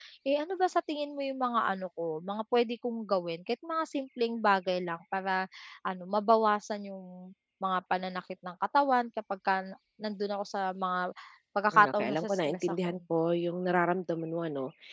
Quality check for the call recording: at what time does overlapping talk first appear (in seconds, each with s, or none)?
11.7 s